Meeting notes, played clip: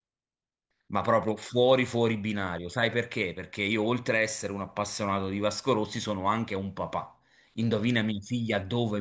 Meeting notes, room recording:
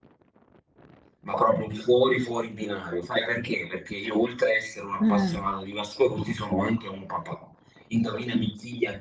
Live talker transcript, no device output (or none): Eh,